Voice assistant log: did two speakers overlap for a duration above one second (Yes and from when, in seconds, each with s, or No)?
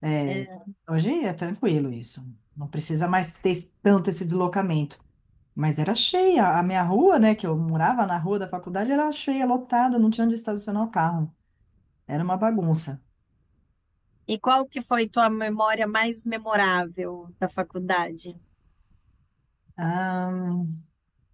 No